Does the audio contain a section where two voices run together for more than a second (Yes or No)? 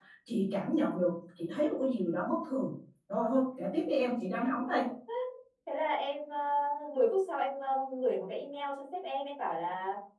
No